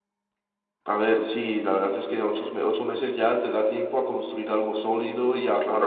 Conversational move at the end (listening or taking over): listening